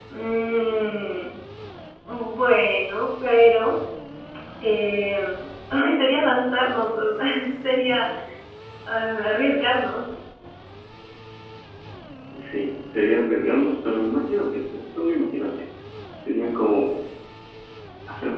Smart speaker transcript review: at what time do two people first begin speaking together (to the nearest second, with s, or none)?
none